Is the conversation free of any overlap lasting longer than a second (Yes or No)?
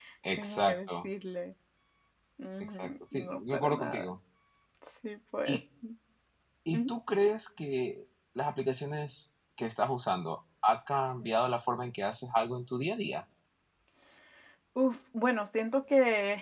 No